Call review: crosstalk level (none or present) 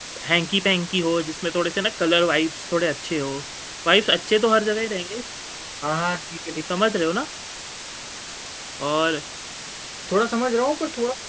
none